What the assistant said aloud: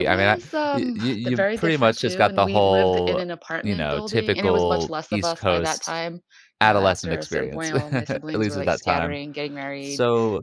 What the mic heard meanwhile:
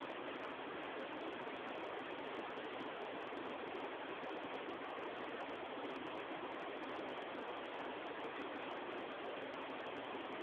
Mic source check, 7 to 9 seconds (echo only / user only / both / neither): neither